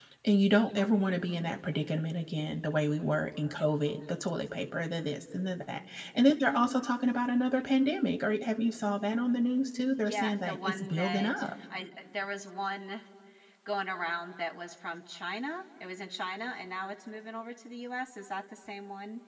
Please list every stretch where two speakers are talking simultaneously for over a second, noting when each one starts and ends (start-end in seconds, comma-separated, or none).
10.0-11.5